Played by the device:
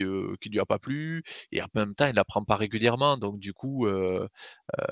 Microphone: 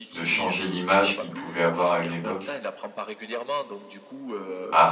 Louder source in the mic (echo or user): user